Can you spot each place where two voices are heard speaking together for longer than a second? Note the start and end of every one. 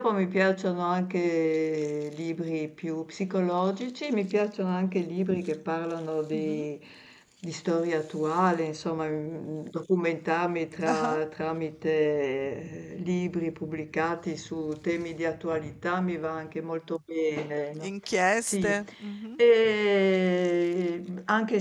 none

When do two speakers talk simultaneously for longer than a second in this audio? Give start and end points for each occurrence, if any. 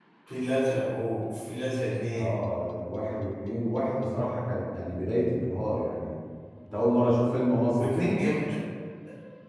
none

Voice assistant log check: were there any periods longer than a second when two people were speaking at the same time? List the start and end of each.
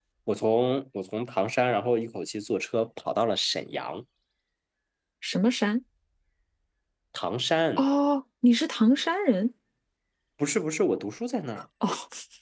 none

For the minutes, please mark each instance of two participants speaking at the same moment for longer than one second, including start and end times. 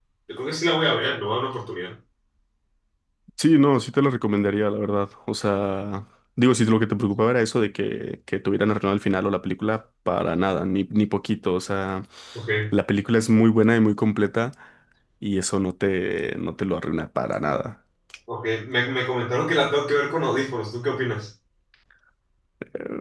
none

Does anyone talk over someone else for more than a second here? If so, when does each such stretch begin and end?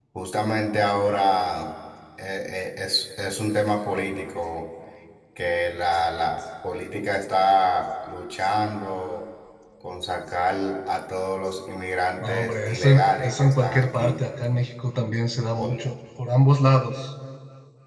12.2-14.2

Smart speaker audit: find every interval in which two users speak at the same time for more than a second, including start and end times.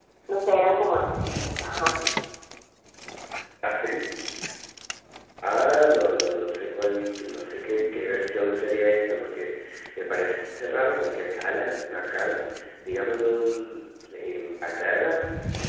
none

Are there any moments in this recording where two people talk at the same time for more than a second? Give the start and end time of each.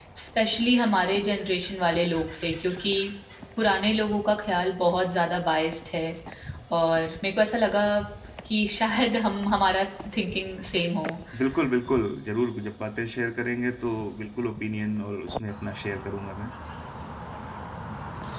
none

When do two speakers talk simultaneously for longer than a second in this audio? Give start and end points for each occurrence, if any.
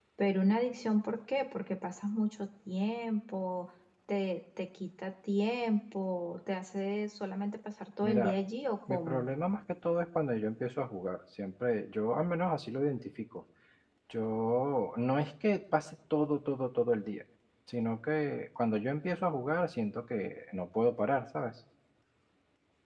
none

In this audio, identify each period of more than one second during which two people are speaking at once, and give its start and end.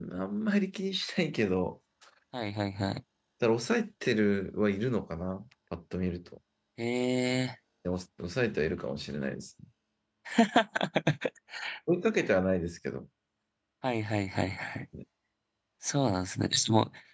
none

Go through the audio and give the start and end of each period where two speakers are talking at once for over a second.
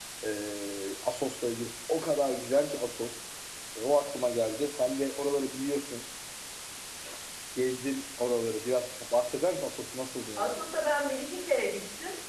none

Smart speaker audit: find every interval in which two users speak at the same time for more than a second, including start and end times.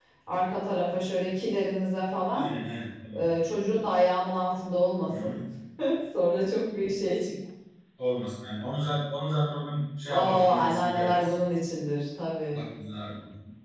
10.1-11.3

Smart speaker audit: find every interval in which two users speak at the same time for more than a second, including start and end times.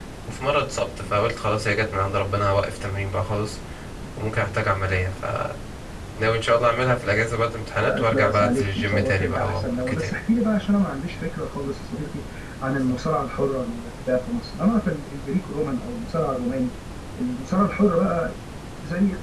7.8-10.2

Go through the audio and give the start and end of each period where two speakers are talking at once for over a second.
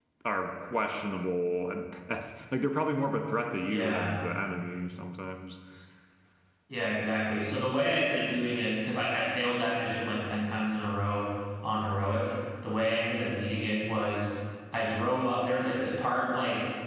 none

